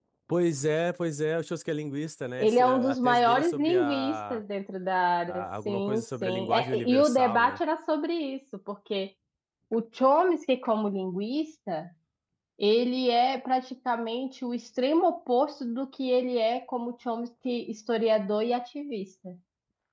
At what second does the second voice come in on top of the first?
2.4 s

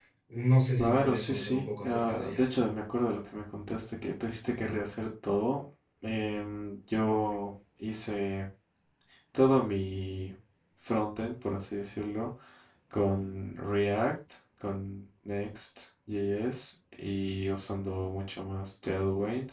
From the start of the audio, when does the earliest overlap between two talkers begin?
0.8 s

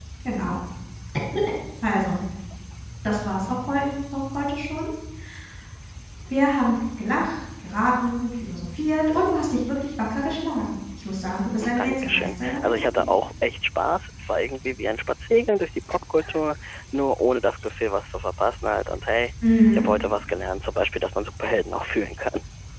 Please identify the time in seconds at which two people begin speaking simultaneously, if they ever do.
11.6 s

